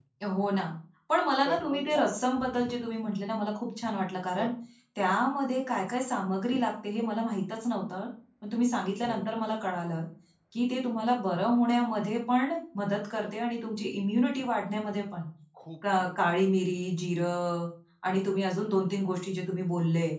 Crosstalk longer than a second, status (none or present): none